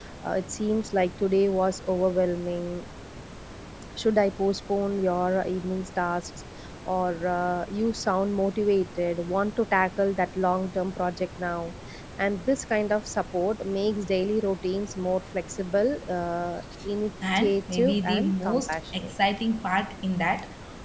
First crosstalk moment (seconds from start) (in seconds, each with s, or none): 17.4 s